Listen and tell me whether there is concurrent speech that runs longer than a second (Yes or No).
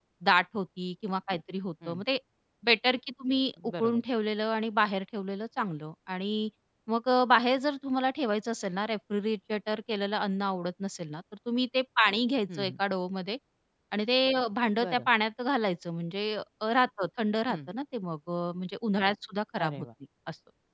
No